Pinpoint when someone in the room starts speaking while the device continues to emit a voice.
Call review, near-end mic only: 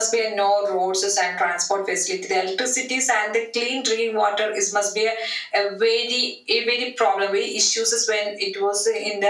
none

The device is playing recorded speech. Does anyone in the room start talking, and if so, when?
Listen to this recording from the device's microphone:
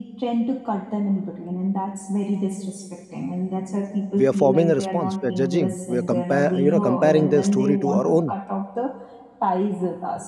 4.2 s

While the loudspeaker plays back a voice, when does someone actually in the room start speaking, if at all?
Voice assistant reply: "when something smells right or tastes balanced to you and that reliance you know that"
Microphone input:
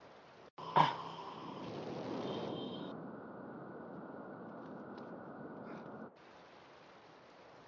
none

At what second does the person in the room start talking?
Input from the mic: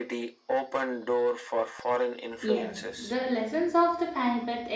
2.4 s

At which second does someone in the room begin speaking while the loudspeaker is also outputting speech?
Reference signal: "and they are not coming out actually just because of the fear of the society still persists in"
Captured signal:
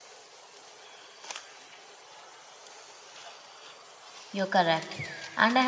4.3 s

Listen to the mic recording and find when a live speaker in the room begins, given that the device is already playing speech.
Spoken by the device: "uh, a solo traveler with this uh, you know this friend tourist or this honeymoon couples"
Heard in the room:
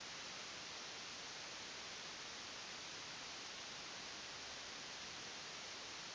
none

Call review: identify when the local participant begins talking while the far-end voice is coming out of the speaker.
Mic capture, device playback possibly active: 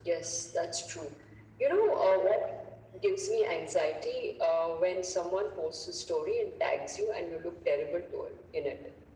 none

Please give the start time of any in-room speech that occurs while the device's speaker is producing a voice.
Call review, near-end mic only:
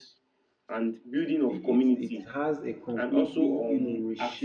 1.4 s

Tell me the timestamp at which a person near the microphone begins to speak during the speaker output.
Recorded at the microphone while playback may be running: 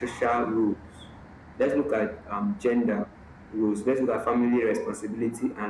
none

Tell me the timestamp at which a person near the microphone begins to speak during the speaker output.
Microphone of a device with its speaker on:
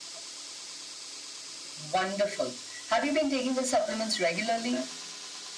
none

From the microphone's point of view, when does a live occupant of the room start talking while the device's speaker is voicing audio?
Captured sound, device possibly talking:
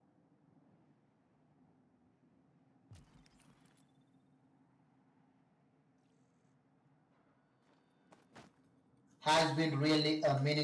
9.2 s

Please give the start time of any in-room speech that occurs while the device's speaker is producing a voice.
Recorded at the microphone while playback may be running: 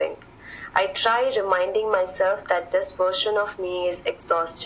none

